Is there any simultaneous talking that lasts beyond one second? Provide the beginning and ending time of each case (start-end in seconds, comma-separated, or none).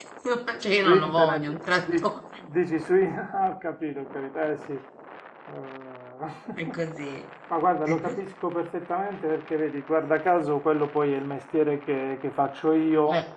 0.8-2.0